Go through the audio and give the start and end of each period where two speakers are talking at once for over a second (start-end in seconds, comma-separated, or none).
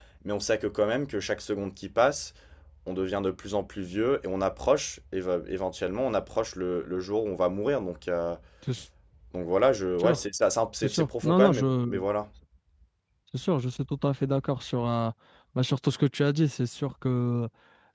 10.8-12.0